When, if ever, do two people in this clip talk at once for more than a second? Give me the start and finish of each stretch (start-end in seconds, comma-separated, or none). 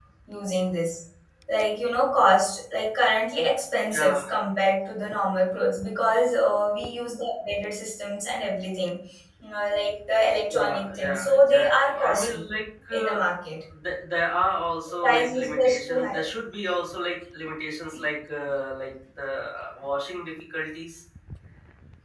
10.5-12.5, 14.9-16.1